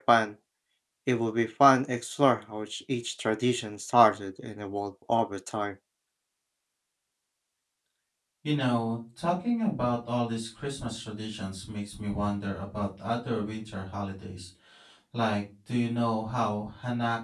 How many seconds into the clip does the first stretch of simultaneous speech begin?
none

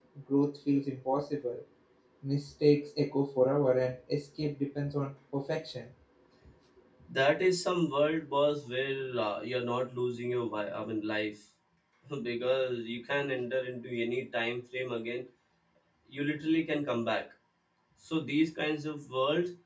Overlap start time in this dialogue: none

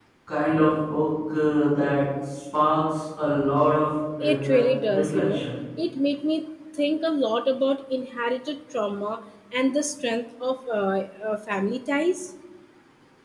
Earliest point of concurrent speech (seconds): 4.2 s

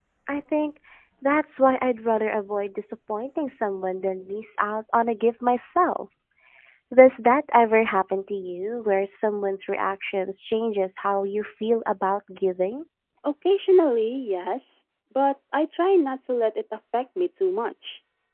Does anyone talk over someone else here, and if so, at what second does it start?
none

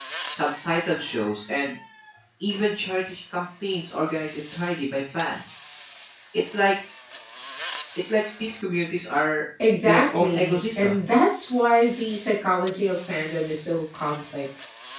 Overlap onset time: 9.6 s

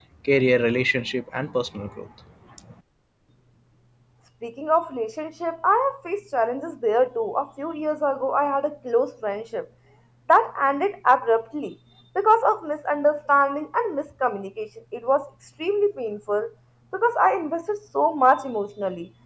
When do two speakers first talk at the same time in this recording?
none

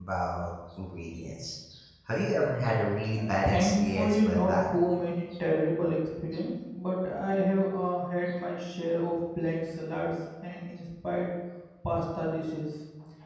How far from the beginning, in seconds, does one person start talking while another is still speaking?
3.2 s

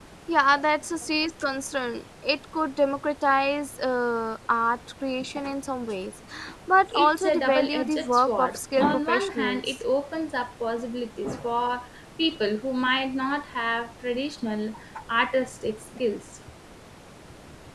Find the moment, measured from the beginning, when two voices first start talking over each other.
6.9 s

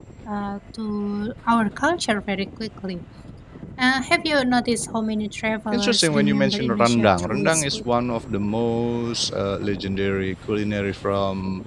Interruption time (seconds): 5.7 s

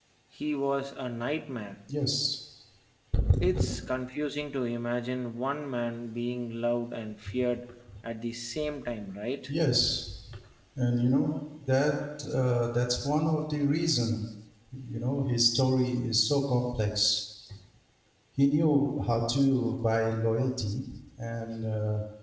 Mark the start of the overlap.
none

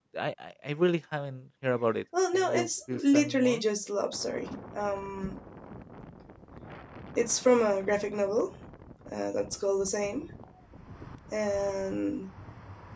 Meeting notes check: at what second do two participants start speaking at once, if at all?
2.1 s

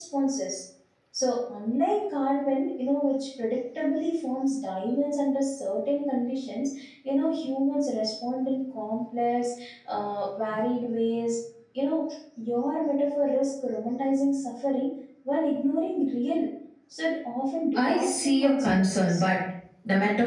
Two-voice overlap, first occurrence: 17.7 s

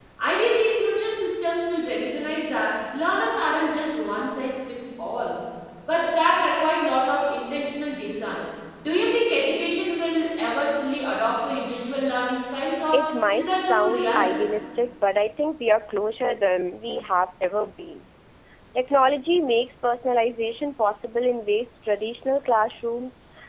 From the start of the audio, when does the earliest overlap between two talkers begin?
12.9 s

